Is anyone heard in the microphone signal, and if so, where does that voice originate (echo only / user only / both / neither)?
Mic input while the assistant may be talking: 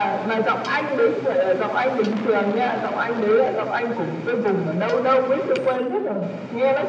echo only